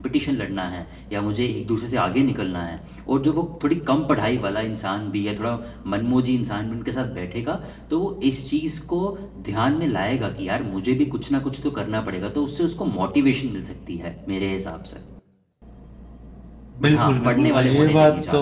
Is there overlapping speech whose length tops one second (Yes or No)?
Yes